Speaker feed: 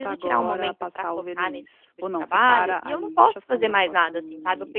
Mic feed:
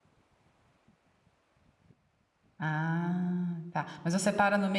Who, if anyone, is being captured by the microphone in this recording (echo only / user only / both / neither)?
user only